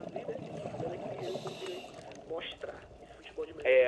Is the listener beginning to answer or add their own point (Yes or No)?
Yes